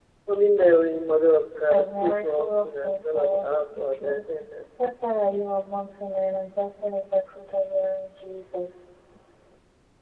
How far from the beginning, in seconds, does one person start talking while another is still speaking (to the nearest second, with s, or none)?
2 s